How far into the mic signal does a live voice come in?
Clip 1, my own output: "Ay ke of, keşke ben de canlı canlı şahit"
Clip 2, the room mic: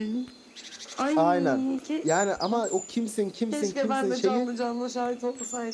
1.1 s

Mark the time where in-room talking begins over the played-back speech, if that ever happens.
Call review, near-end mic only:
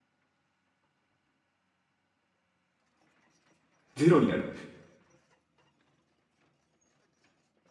4.0 s

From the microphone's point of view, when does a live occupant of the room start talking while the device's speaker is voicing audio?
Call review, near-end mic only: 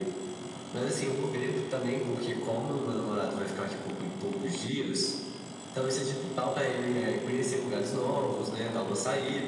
none

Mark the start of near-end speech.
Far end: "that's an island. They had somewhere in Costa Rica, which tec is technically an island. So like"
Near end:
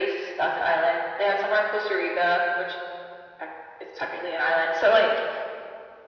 none

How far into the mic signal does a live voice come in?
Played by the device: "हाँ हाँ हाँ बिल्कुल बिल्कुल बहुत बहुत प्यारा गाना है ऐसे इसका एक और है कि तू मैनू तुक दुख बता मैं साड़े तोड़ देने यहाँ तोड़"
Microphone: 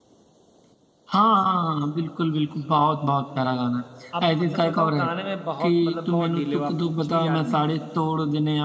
4.2 s

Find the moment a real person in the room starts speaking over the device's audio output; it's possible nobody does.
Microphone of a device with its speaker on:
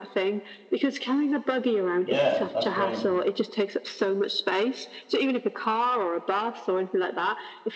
2.0 s

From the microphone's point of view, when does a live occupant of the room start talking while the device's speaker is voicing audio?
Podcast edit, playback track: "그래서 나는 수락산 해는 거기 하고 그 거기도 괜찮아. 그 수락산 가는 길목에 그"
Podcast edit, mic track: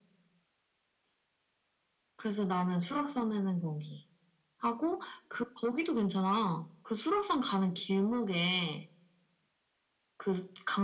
none

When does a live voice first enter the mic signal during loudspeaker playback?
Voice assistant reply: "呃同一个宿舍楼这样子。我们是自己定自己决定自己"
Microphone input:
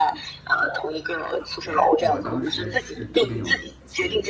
1.6 s

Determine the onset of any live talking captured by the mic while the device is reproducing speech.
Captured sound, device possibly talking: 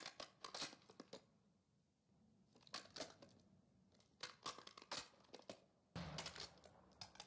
none

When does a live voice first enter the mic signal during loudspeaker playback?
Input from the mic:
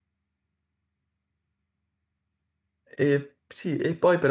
3.0 s

